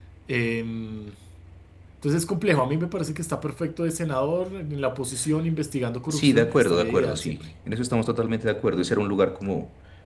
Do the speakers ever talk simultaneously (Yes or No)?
Yes